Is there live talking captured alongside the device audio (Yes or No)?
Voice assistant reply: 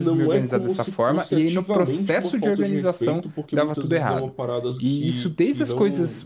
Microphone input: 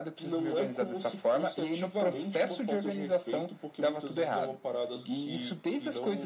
No